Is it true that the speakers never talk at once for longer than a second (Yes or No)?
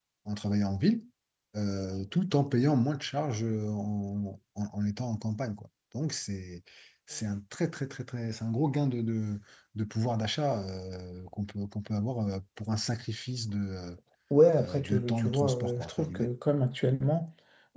No